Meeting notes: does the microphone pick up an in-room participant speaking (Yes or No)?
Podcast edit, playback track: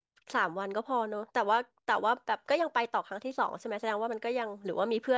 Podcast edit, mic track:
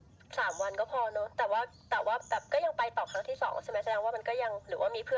No